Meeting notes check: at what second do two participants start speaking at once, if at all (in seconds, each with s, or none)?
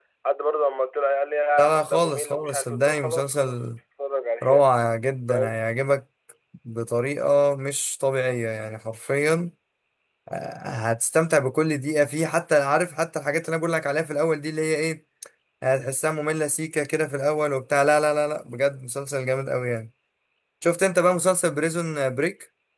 1.6 s